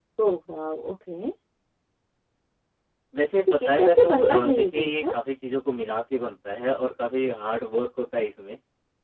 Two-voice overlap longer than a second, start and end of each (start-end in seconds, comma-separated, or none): 3.5-5.0